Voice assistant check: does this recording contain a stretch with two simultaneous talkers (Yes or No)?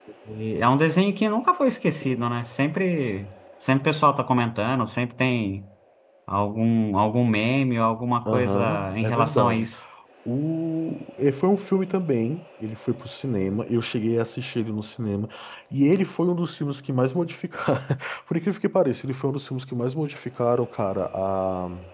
Yes